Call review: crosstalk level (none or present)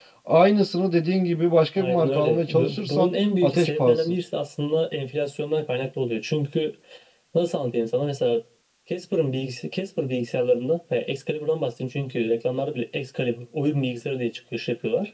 present